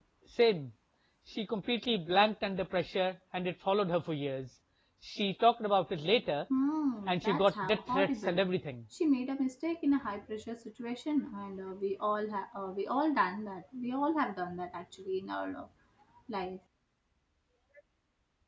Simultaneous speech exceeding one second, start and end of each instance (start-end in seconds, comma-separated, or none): 7.1-8.4